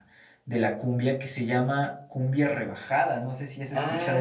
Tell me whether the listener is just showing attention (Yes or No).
No